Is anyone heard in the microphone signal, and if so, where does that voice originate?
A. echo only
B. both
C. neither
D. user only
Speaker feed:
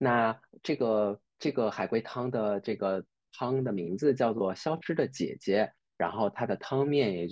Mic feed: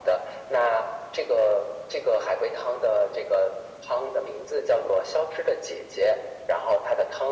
A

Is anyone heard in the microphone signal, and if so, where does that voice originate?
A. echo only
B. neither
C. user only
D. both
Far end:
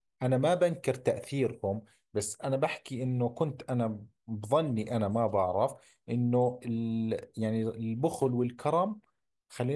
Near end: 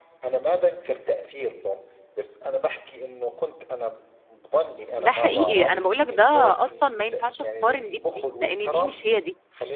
D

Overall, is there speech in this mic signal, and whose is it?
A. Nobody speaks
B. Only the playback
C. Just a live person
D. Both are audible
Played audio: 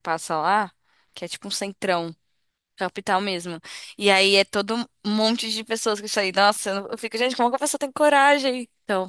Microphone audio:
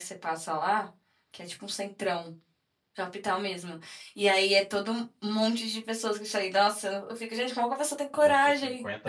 D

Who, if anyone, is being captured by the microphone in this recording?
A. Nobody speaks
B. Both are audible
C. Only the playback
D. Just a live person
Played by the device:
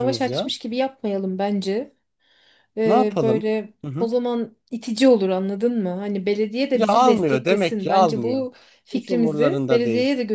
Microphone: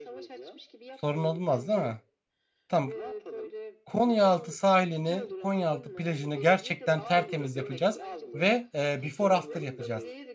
B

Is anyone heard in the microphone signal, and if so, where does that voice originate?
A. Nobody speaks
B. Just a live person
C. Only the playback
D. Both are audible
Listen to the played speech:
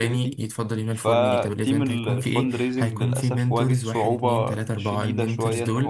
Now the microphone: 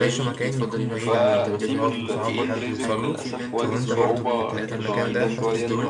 D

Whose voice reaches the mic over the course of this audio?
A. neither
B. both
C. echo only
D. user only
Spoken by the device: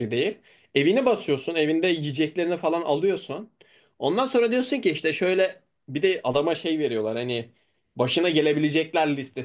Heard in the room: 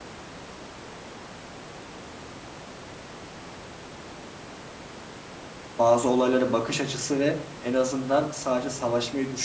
D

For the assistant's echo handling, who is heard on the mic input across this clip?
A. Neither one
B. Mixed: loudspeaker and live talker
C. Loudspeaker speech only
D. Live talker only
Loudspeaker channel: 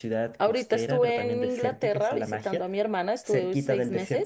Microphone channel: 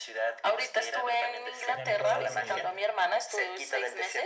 B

